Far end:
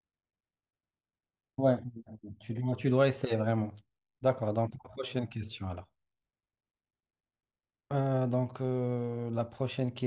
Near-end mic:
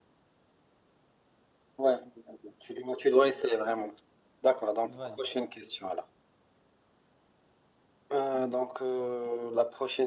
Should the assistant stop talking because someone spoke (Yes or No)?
Yes